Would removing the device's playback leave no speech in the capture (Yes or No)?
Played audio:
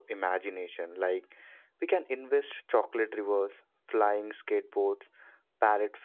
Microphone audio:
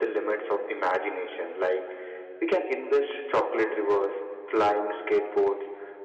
Yes